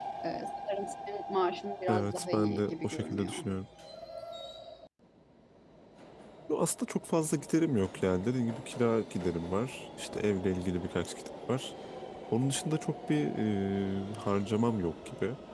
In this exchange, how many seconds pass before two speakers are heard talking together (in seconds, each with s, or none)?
1.9 s